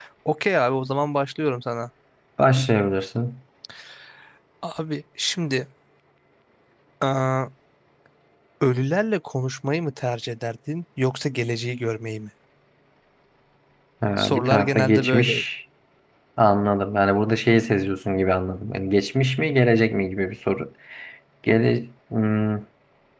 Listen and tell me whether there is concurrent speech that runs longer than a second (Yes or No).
Yes